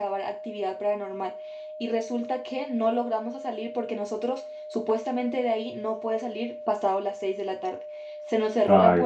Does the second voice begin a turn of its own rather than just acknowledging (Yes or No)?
No